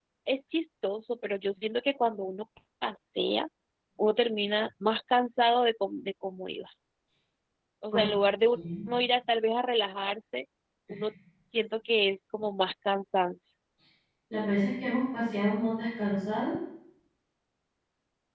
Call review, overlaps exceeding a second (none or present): none